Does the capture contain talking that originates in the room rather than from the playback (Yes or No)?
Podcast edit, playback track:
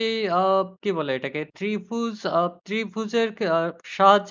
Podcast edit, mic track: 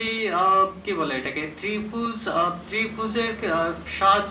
No